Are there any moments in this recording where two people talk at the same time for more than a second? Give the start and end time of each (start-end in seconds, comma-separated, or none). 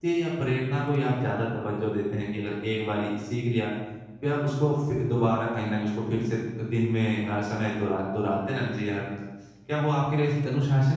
none